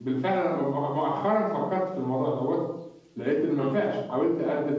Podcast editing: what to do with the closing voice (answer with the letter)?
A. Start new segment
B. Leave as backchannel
B